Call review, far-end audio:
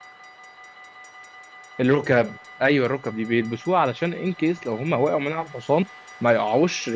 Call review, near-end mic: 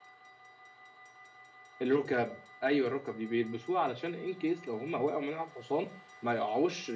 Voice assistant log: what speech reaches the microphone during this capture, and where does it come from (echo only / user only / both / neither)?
echo only